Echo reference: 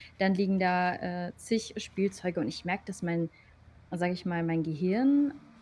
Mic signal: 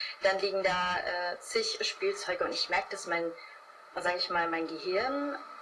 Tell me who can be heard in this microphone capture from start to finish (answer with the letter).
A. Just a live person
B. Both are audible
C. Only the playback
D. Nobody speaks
C